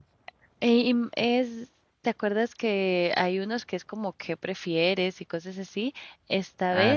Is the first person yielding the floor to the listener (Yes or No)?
No